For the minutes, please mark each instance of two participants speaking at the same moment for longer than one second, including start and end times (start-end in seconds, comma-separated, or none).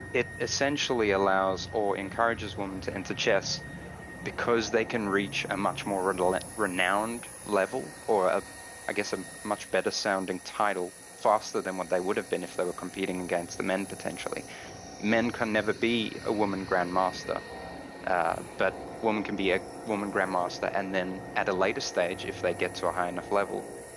none